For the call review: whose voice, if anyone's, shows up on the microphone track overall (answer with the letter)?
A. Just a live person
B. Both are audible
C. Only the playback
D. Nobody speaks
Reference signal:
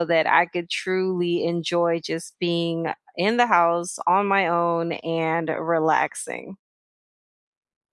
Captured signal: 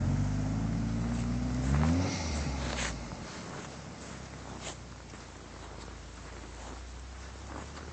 D